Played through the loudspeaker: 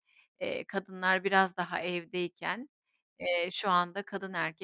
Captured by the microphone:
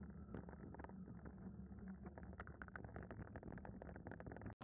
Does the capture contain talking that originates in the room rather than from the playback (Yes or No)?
No